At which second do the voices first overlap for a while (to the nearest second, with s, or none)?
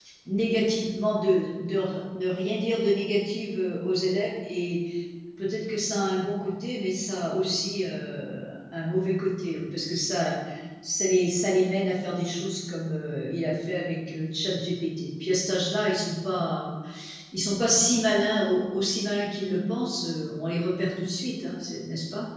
none